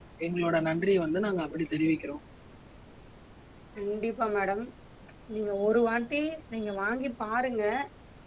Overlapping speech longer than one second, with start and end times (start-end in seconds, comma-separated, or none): none